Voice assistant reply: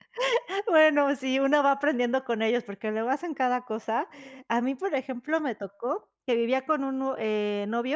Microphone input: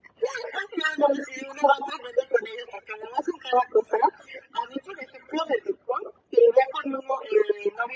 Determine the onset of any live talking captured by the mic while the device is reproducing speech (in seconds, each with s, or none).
none